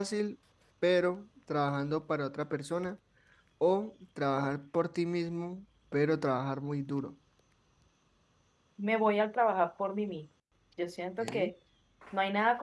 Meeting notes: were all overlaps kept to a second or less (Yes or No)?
Yes